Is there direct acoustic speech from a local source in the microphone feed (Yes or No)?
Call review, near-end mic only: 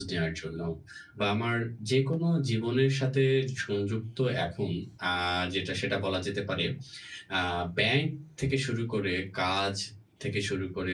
Yes